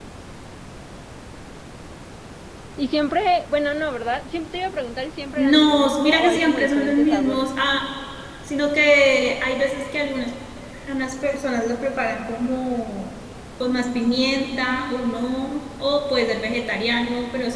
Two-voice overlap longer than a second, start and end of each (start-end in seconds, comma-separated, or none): 5.4-7.5